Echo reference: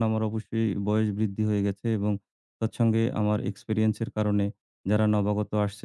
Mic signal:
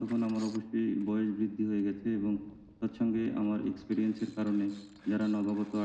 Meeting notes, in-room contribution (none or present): none